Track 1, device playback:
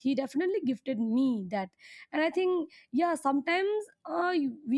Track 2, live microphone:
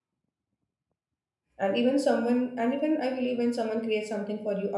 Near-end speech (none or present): present